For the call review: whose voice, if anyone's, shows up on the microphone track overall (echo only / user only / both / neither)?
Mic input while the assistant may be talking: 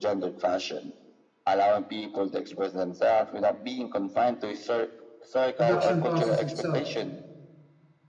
both